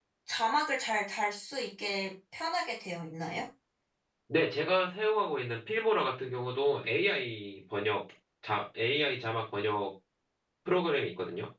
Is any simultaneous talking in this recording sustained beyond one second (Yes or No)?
No